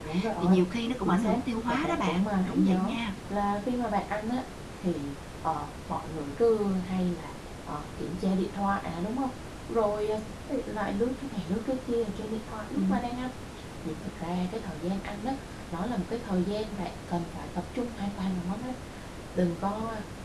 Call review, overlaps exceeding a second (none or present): present